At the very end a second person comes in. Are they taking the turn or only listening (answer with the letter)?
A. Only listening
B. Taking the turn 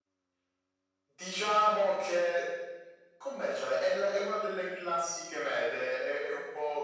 A